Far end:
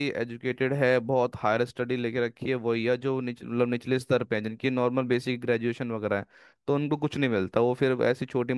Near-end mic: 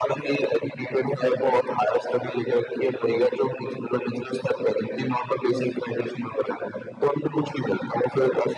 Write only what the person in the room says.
none

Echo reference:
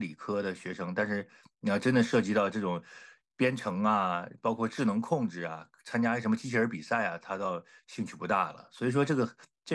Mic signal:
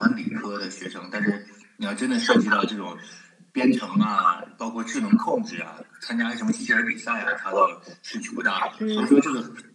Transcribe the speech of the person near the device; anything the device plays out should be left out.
嗯

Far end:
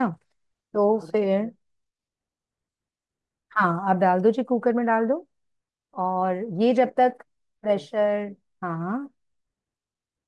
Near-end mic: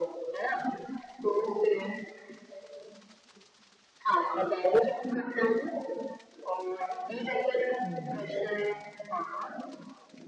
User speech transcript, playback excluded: हम्म,

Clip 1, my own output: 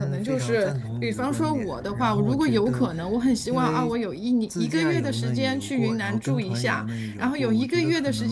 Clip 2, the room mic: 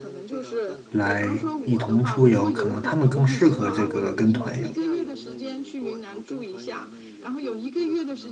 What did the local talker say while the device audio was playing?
来一同出游，可能他们更适合这个跟团游。

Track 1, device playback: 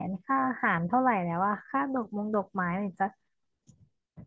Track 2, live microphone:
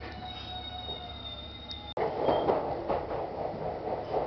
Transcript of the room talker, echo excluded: none

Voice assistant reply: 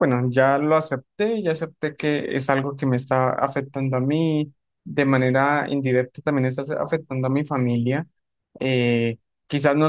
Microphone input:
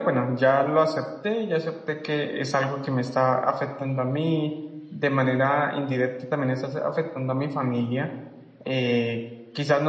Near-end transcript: none

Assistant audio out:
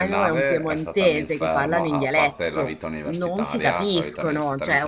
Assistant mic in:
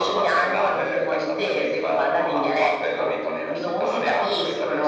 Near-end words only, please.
none

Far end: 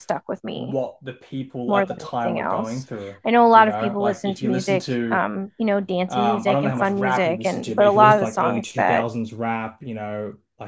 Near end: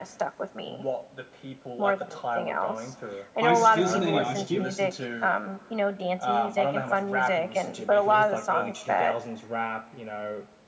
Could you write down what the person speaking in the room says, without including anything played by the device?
Ice Steelson, any Ice Cube?

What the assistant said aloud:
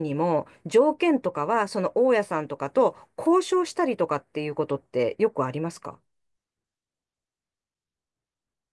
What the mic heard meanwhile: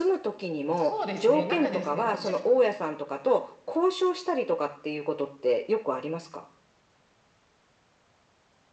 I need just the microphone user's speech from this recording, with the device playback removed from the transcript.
そうですね、中ですね、こっちっ

